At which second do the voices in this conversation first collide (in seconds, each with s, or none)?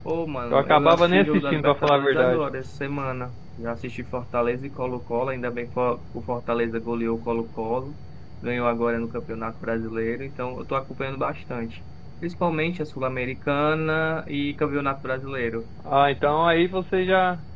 0.5 s